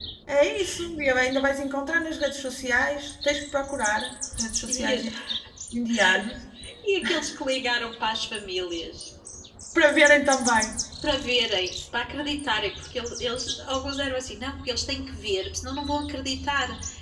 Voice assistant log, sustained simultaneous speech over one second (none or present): none